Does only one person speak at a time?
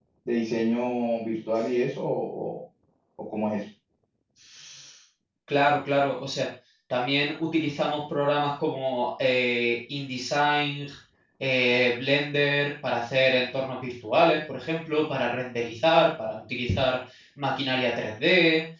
Yes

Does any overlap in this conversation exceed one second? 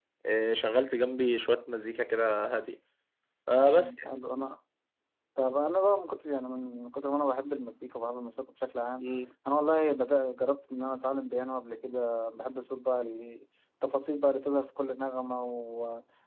No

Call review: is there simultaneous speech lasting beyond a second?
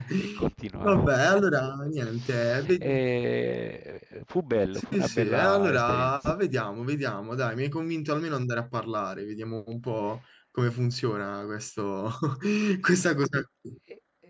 Yes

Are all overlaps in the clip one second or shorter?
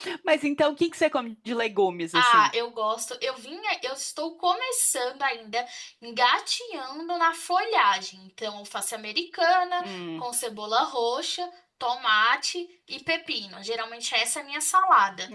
Yes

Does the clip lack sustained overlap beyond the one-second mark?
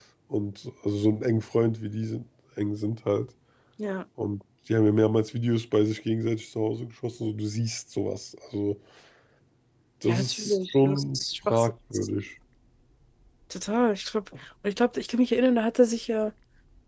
No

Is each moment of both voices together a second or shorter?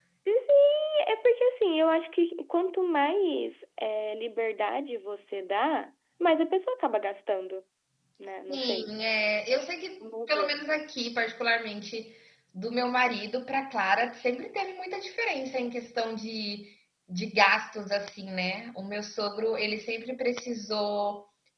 Yes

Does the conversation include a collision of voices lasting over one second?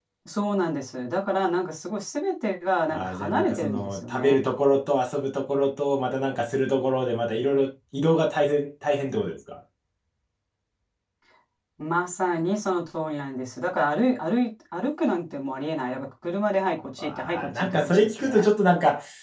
Yes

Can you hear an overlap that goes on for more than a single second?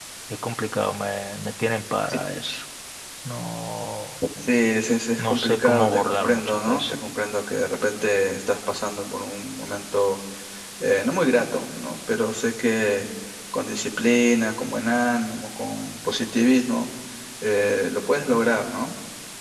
Yes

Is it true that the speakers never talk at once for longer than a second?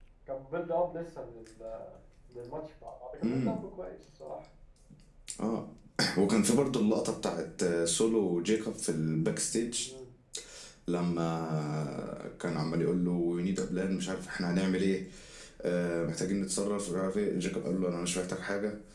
Yes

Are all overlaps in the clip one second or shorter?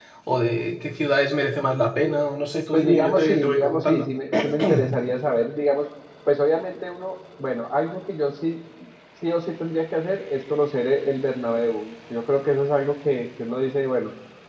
No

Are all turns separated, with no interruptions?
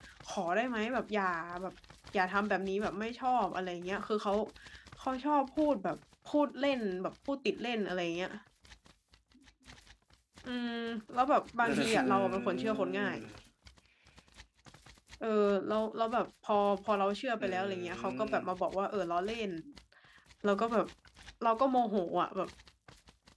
No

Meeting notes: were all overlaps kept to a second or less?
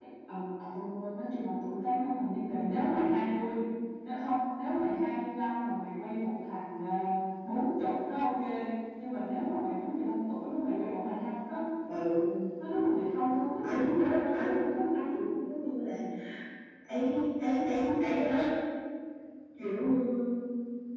No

